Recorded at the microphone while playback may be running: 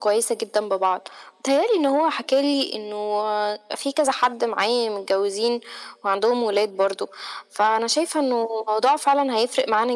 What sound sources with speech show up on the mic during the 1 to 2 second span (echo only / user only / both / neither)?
echo only